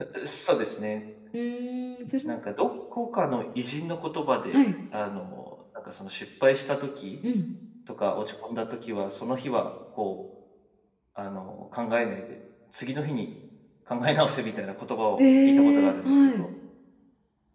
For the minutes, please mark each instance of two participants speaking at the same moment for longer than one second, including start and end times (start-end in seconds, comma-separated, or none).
15.2-16.5